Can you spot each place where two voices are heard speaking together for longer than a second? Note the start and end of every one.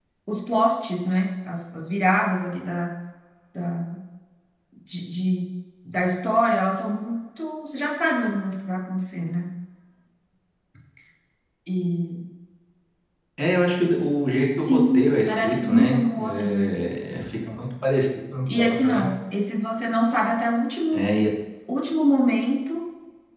14.6-16.7

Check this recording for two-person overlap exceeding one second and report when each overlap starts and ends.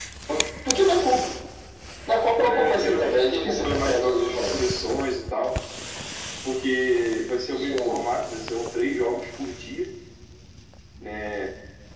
2.4-4.6

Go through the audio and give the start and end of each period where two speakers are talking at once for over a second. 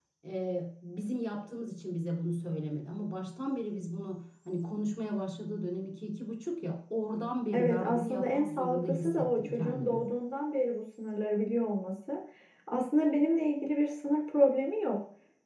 7.5-10.0

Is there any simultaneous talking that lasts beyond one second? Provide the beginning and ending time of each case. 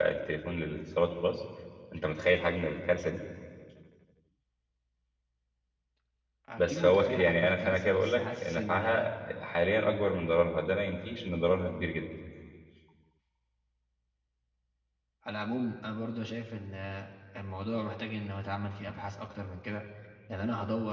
6.6-9.1

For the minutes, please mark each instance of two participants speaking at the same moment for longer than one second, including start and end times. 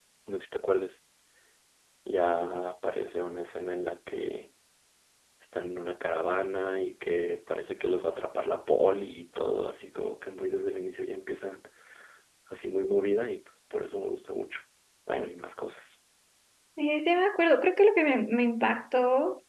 none

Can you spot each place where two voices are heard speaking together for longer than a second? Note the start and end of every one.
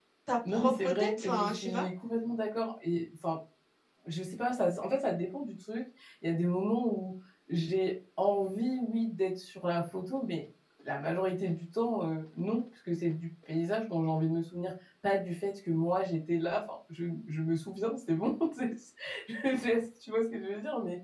0.5-1.8

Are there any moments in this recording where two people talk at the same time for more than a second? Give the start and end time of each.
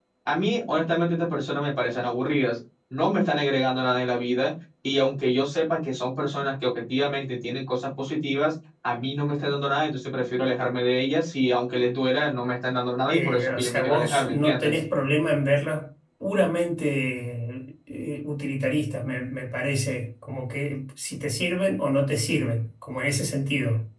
13.1-14.8

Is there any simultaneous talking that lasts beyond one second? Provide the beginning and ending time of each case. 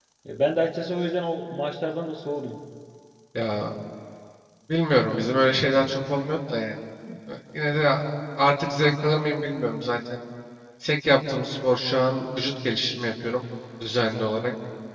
none

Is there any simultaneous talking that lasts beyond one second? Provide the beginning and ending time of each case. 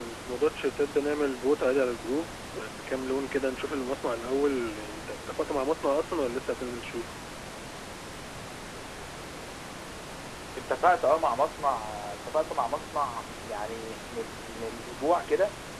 none

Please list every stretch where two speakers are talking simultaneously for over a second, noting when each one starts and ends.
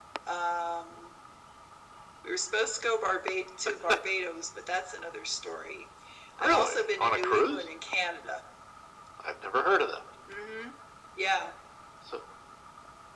6.4-7.6

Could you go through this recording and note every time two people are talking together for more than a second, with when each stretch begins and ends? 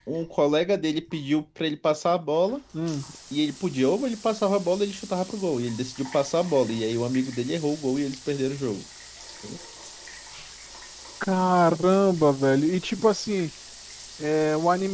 none

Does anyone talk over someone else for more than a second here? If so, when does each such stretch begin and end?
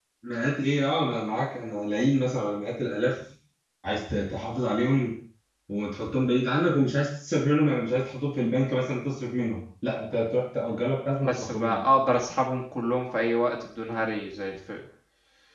none

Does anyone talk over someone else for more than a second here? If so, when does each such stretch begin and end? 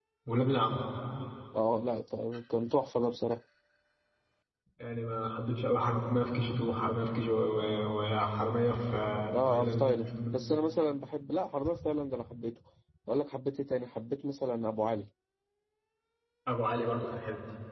none

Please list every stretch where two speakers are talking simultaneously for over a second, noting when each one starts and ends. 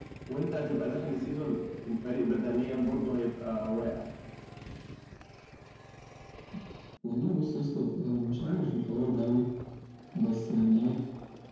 none

